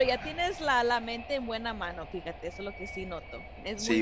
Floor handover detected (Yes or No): Yes